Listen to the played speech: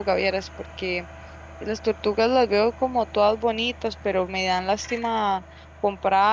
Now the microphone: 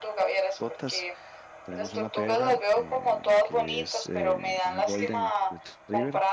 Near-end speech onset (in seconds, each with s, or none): 0.6 s